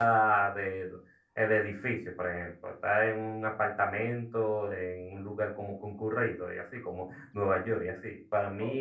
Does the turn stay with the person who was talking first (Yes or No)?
Yes